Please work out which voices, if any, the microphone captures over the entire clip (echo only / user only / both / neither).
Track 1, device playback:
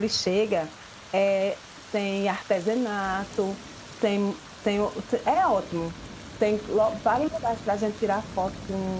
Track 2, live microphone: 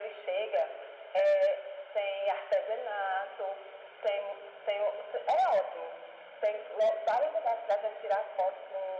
echo only